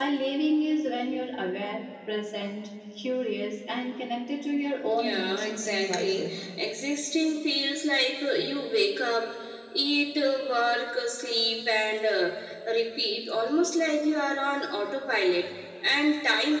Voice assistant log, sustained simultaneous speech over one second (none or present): present